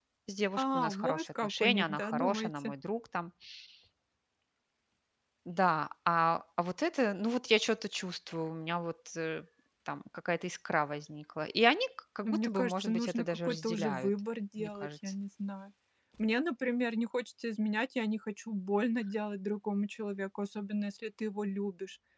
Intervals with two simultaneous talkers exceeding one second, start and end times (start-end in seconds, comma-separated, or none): 0.6-2.7, 12.2-14.1